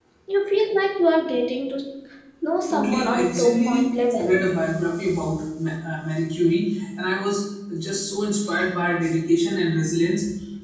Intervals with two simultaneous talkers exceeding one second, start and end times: 2.7-4.4

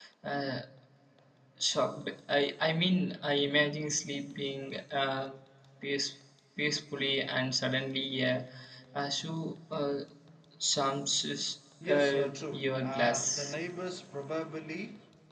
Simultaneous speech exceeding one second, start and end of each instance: 11.9-13.5

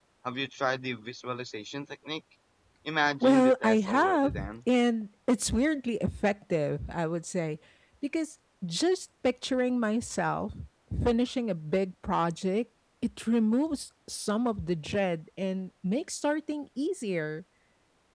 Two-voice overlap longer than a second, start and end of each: 3.2-4.5

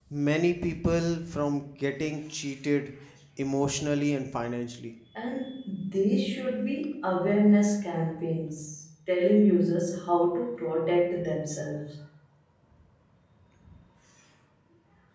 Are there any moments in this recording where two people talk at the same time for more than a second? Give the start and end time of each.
none

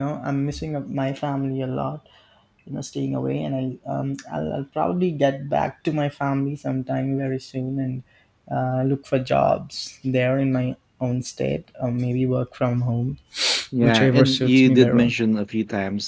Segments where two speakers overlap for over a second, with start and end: 13.8-15.1

